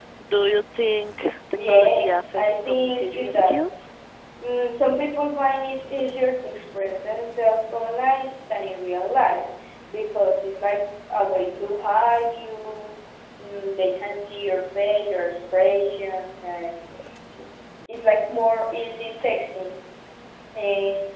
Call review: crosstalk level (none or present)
present